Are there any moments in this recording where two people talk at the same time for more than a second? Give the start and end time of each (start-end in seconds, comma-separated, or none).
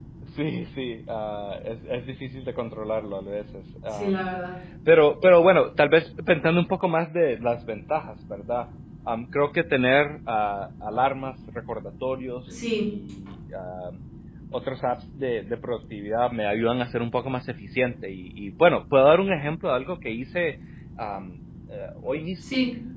none